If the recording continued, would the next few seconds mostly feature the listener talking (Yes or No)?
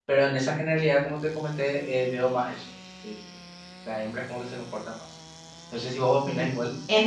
Yes